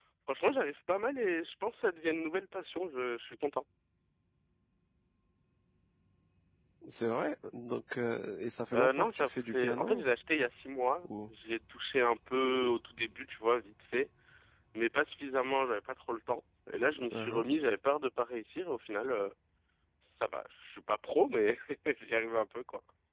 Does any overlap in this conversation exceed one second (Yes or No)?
Yes